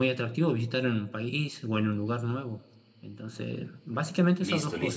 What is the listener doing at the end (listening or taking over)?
taking over